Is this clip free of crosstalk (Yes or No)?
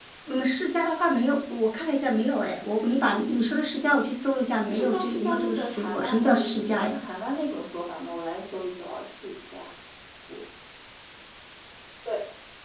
No